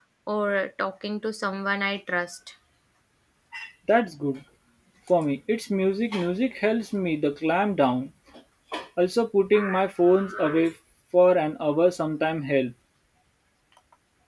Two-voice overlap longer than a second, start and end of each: none

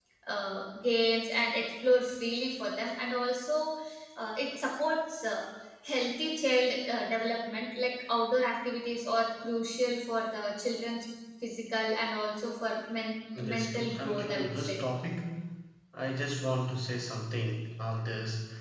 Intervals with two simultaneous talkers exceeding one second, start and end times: 13.5-14.8

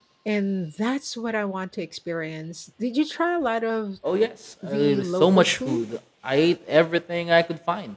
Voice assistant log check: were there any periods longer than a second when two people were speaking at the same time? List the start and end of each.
4.6-5.8

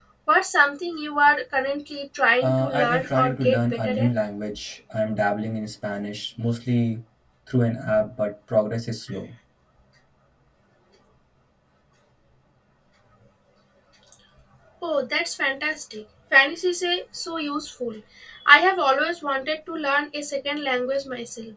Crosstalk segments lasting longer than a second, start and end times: 2.4-4.1

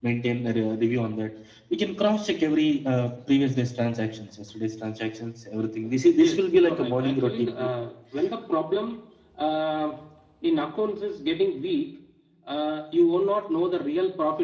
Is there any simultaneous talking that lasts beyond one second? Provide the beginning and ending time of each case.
6.2-7.5

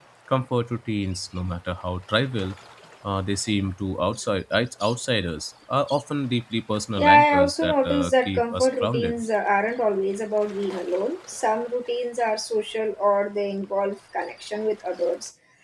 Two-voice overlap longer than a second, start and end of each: 7.0-9.2

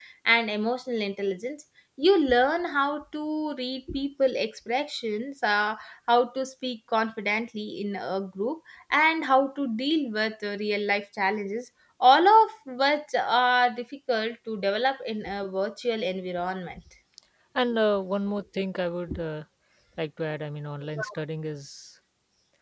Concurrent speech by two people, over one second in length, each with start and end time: none

